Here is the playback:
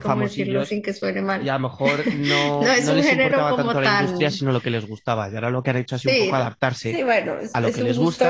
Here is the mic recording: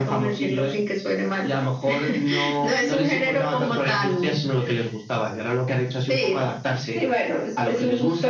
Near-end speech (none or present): none